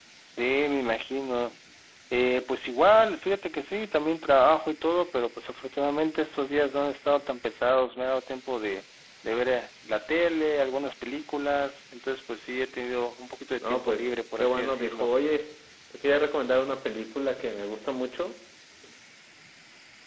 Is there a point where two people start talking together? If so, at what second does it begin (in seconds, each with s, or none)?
13.6 s